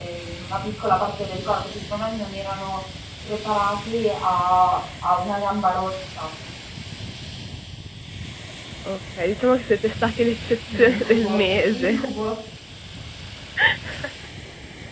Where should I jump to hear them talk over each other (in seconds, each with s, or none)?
10.7 s